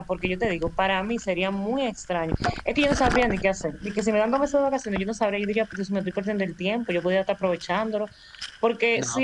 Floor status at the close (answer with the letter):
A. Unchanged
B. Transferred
B